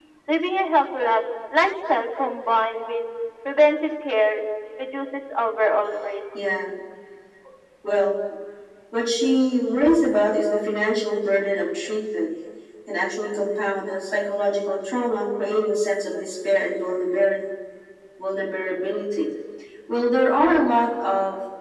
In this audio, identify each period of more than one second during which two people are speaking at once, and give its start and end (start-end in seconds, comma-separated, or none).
none